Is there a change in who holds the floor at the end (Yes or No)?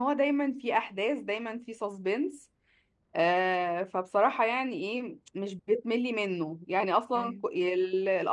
No